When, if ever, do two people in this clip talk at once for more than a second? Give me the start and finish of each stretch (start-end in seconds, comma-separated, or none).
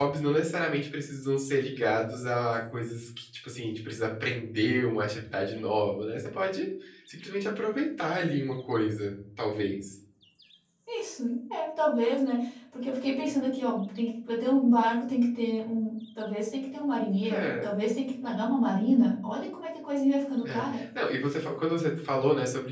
none